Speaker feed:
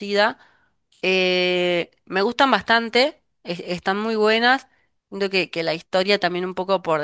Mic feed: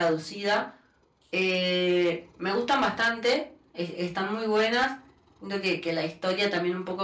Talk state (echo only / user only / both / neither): echo only